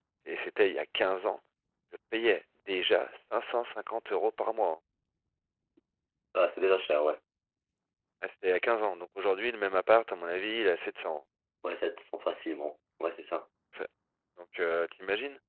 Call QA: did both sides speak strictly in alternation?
Yes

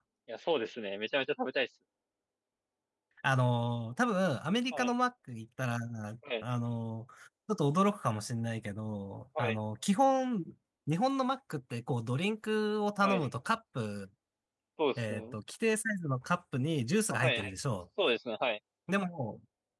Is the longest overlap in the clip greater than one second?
No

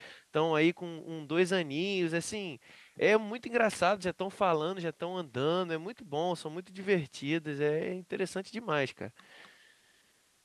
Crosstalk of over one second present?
No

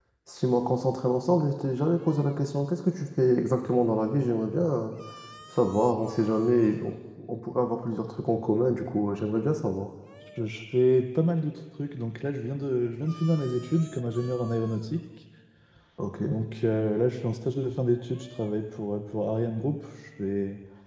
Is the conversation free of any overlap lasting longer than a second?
Yes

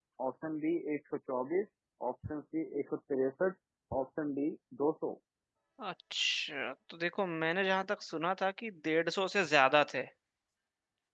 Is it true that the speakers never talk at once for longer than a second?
Yes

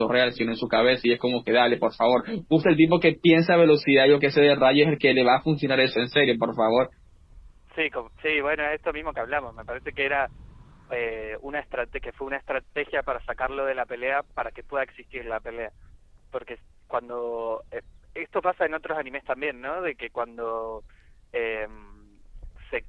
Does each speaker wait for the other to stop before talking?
Yes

